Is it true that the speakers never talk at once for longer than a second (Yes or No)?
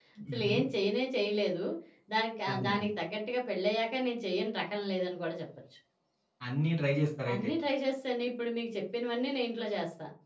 Yes